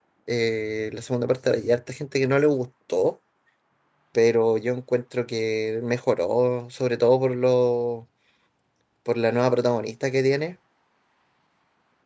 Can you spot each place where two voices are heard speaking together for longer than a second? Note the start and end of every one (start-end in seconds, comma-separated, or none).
none